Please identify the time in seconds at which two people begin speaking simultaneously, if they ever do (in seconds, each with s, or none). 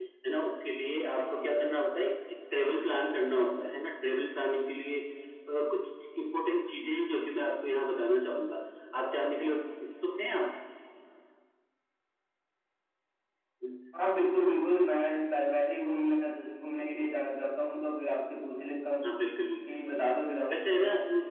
none